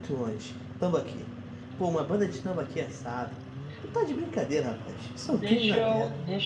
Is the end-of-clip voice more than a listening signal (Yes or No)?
Yes